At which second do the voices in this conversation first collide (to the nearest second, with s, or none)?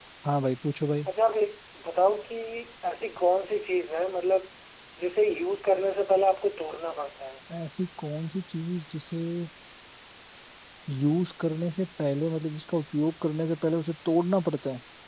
none